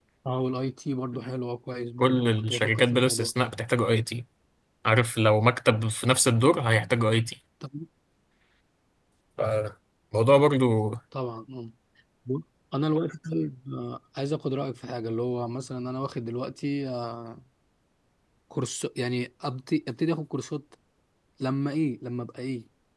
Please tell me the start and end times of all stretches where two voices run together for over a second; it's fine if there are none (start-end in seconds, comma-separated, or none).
2.0-3.3